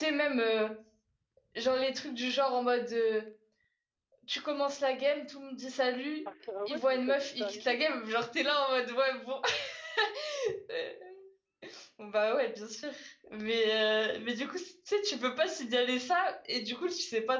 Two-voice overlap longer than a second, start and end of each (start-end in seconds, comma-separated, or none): 6.7-8.0